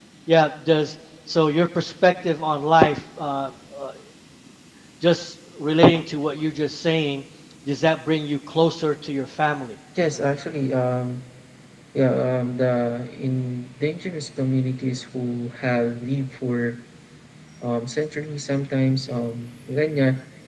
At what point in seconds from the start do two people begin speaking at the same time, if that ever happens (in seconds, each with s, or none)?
none